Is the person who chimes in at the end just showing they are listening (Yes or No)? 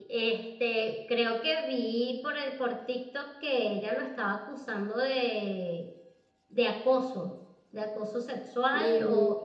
Yes